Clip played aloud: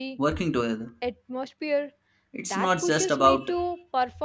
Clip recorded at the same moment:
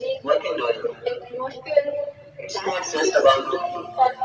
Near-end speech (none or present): none